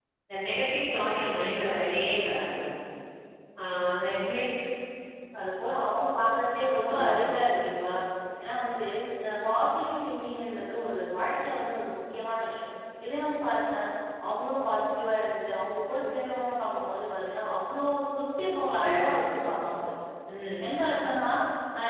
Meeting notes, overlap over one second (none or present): none